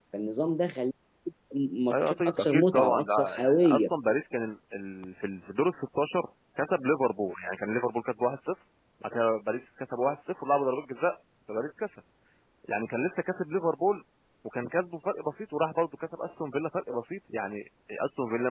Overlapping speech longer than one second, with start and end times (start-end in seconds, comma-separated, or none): 1.9-3.8